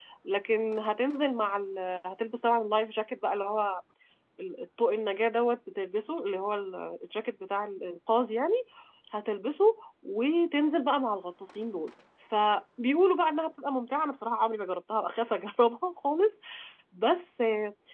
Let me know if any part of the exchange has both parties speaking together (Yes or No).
No